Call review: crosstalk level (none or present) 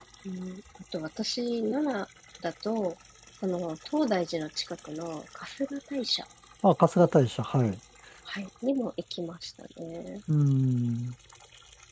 none